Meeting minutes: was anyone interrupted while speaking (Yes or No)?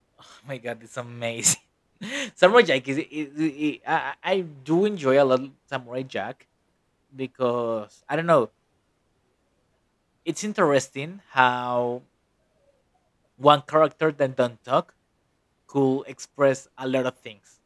No